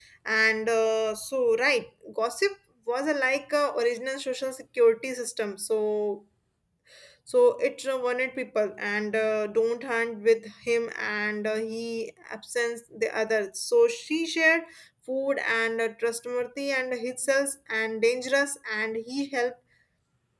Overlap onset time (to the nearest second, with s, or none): none